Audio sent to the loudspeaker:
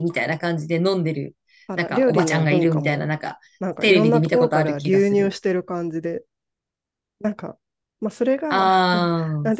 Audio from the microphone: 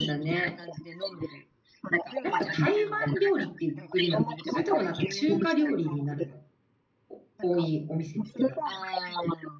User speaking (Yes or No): Yes